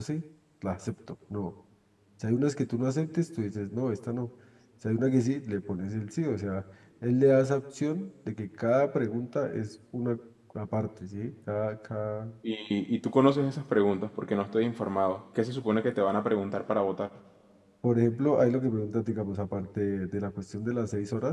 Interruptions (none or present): none